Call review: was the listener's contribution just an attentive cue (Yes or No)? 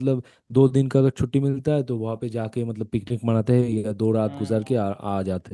Yes